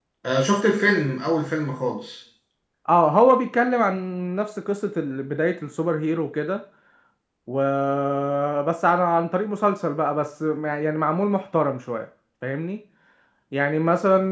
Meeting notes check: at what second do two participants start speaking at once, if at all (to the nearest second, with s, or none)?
none